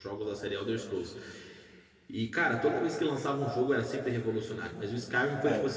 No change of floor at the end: Yes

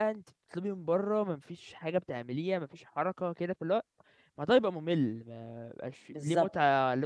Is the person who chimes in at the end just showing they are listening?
Yes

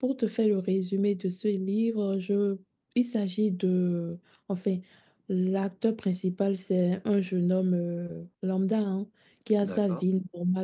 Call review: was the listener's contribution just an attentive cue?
Yes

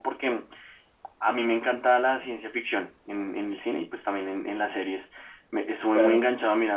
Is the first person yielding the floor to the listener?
No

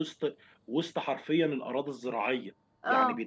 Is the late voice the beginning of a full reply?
No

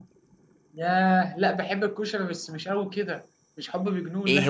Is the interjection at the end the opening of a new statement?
Yes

